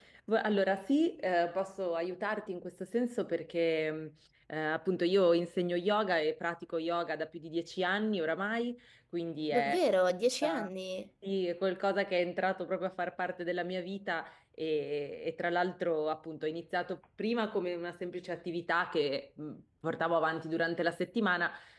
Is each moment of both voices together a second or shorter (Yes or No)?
Yes